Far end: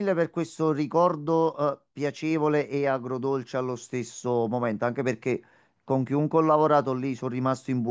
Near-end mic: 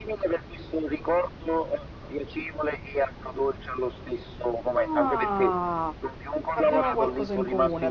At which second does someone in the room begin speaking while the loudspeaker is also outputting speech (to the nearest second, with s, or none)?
5 s